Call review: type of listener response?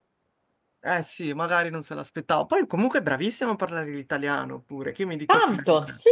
taking over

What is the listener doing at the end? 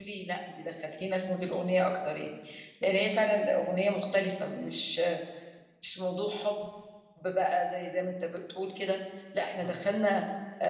listening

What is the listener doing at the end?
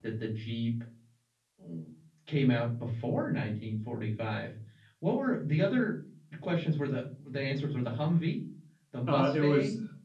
taking over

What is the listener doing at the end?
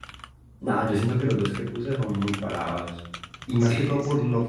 listening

